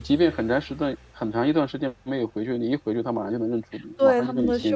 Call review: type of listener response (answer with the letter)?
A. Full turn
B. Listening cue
A